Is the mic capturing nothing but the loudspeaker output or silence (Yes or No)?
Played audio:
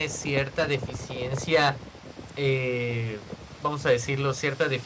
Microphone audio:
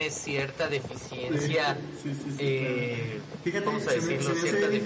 No